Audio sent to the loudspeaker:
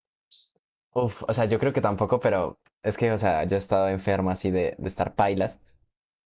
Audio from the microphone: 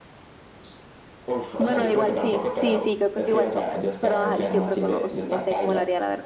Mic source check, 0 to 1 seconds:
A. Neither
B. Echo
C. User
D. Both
A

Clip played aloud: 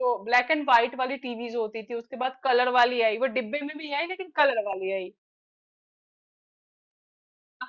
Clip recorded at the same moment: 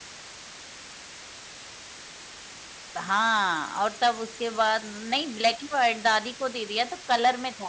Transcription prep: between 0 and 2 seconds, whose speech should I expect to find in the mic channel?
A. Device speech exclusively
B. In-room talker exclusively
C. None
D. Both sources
C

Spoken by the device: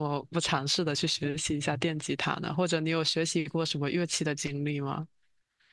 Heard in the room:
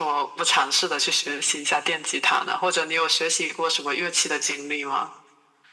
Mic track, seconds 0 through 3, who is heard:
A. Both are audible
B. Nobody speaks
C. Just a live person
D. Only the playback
D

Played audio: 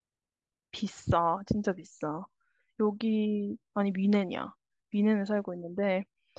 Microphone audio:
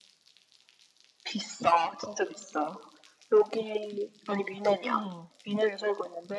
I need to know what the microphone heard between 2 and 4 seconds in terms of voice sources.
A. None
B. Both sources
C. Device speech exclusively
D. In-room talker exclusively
C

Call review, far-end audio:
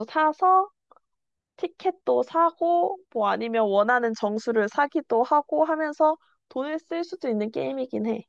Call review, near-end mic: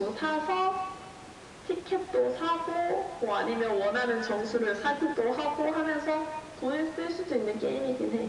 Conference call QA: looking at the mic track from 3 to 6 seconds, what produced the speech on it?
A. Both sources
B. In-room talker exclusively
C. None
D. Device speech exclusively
D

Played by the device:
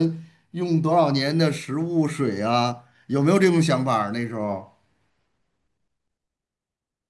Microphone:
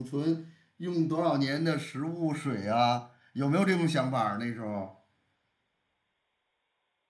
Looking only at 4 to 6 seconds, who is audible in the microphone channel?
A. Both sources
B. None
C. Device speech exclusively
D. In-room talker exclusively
C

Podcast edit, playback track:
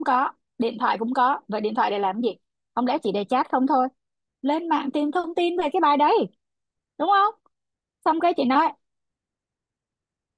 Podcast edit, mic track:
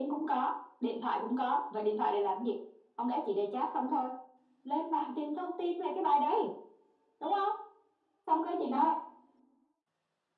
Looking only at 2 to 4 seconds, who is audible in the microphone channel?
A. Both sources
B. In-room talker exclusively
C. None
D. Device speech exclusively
D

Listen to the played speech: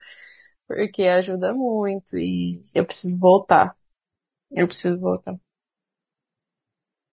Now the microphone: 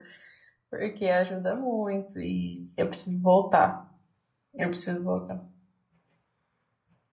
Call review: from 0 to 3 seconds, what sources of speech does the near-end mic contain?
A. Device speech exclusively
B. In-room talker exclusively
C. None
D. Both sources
A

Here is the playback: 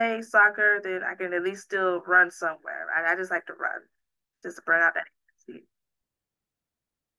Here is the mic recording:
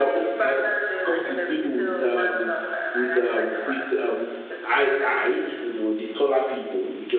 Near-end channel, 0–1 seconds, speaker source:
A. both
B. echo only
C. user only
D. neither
A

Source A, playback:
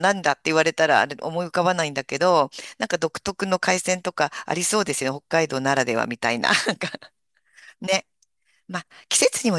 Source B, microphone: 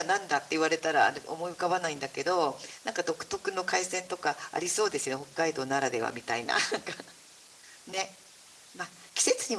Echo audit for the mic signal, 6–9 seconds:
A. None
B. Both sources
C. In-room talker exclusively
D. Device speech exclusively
D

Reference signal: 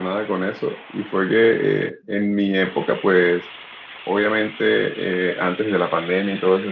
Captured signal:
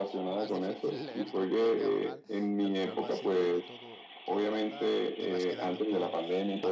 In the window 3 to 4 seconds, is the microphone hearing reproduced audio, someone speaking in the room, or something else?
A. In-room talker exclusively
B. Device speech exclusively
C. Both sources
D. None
C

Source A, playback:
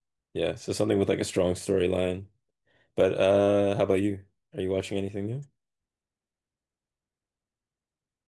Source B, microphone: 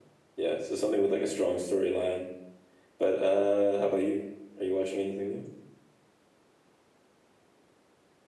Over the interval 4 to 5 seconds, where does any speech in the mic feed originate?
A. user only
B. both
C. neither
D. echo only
D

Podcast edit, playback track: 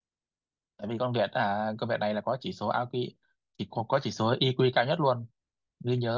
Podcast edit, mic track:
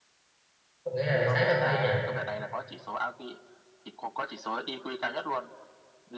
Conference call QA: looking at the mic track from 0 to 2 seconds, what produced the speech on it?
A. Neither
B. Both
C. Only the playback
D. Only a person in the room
B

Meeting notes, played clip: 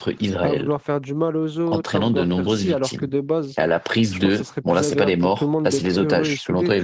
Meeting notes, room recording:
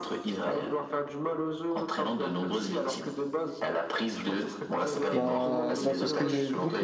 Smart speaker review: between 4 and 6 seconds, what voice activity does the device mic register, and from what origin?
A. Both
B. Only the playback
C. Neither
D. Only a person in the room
A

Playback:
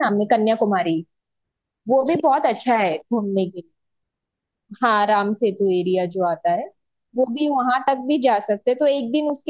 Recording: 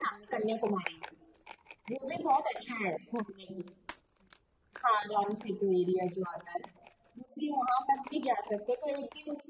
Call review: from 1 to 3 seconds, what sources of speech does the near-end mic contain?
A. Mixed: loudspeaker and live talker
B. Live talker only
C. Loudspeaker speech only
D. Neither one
C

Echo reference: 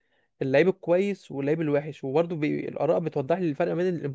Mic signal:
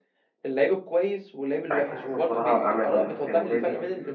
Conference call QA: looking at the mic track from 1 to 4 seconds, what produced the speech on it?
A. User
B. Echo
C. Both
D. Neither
C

